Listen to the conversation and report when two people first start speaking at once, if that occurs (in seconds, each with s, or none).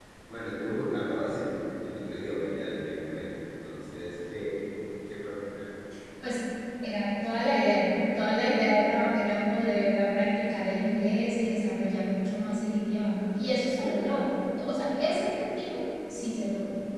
none